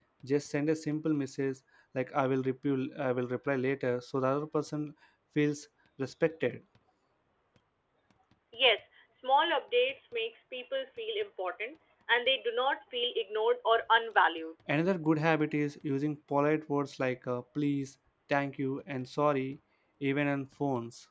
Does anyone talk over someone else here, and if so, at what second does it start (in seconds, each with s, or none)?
none